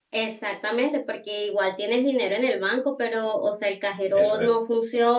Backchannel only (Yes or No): Yes